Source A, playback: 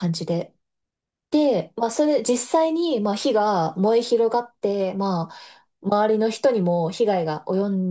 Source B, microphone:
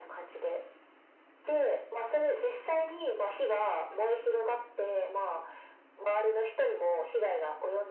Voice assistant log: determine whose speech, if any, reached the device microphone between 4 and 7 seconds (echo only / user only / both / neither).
echo only